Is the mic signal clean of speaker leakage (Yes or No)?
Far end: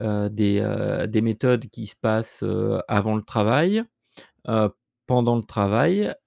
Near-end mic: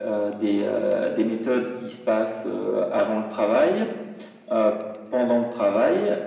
No